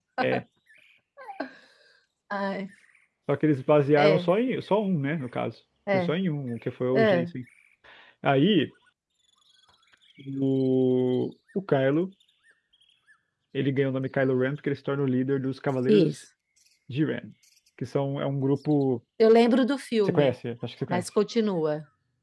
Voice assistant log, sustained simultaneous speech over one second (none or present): none